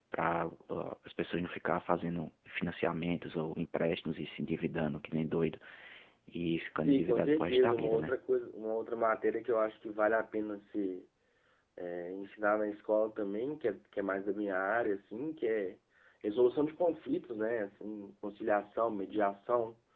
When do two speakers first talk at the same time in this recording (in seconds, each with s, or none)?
6.8 s